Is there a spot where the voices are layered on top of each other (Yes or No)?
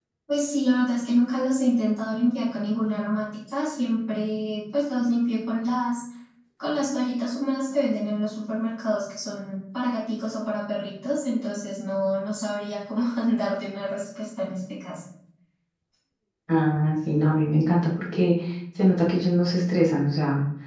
No